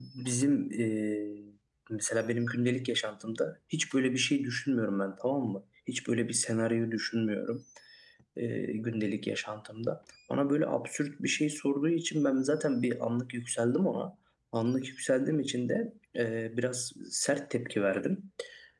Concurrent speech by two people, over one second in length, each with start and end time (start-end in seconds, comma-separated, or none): none